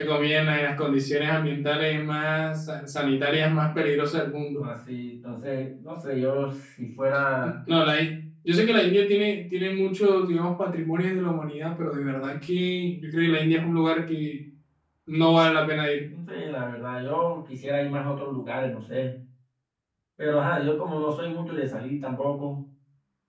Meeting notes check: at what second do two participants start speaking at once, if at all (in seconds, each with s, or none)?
none